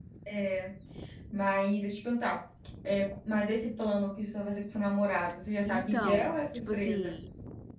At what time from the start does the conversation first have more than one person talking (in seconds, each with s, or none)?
5.7 s